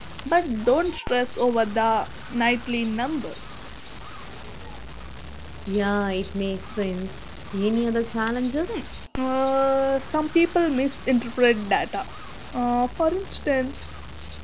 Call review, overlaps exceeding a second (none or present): none